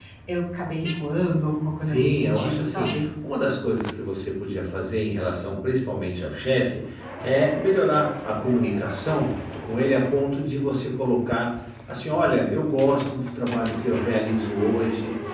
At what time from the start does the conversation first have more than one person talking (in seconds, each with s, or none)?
1.8 s